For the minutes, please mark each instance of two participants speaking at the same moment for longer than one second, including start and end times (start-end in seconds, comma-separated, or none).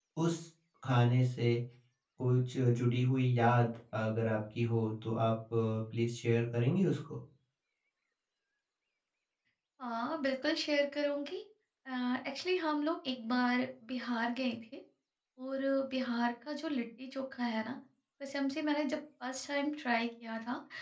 none